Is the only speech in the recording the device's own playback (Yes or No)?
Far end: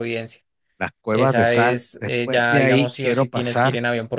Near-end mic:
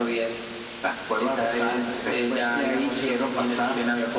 Yes